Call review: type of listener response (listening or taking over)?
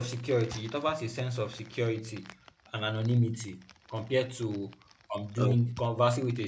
listening